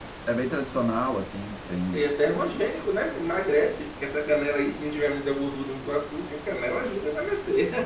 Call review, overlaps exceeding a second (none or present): none